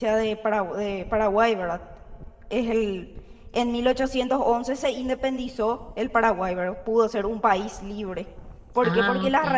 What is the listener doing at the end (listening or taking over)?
listening